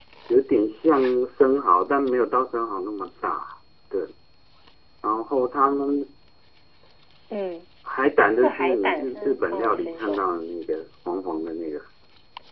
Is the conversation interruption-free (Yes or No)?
No